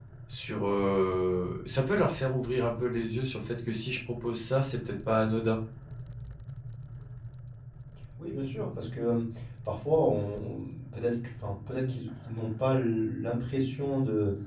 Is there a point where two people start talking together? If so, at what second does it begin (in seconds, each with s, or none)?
none